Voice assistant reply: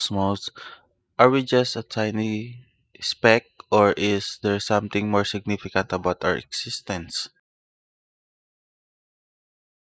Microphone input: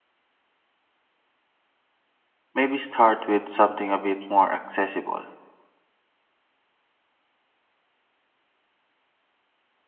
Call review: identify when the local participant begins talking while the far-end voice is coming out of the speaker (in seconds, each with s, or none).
2.5 s